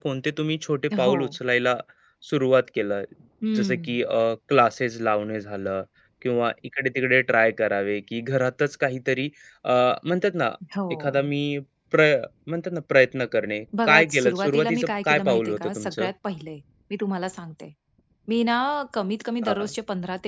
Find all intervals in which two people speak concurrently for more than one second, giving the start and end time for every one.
13.8-16.1

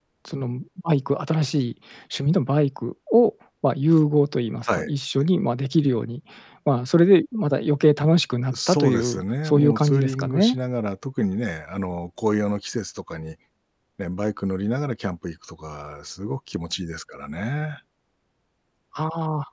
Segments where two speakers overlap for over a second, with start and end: 8.5-10.6

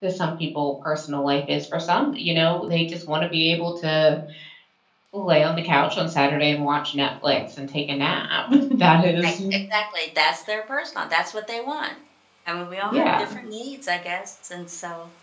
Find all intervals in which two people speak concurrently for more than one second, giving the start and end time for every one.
none

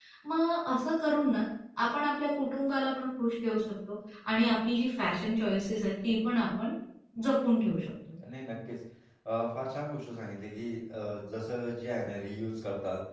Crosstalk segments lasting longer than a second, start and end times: none

